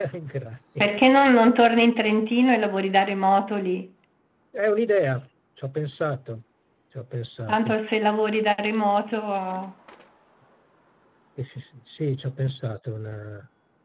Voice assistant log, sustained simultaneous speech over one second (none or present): none